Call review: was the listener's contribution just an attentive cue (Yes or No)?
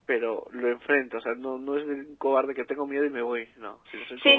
No